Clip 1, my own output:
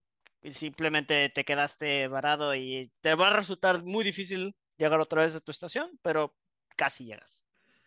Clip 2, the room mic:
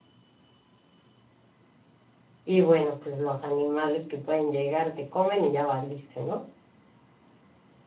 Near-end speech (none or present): present